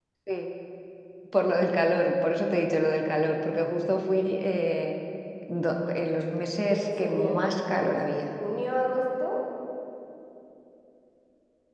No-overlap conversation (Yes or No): No